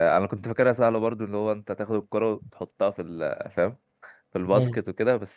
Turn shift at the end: No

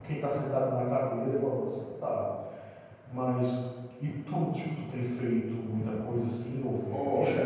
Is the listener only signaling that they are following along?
No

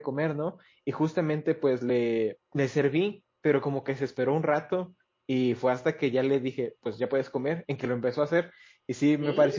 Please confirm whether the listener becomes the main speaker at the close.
No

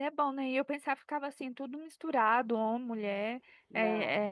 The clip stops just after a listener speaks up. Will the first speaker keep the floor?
Yes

